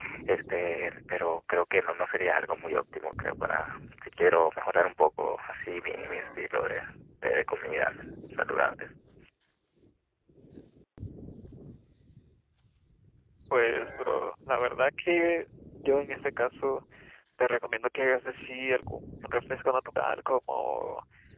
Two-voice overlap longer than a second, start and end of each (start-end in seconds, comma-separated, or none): none